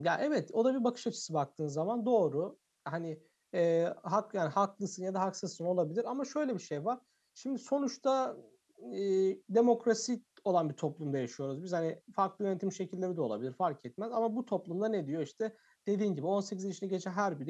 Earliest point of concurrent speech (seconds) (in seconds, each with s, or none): none